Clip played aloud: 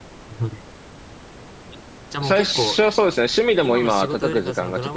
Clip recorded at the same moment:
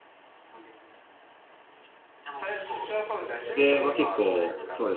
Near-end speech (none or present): present